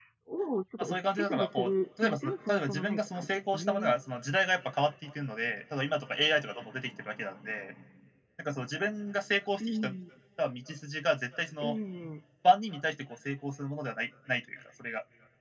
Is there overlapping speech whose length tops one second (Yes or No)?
Yes